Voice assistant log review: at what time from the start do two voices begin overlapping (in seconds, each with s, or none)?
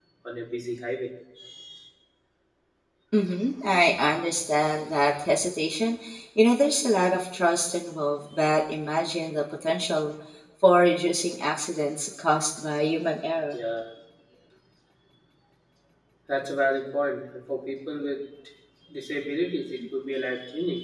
none